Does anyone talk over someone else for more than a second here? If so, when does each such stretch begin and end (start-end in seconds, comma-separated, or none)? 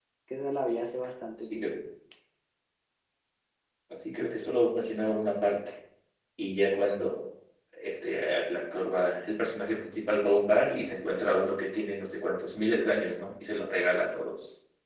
none